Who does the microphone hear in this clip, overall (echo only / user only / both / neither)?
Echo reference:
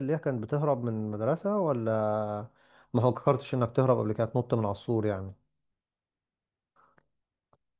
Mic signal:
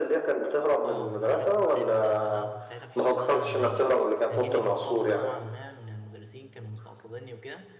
both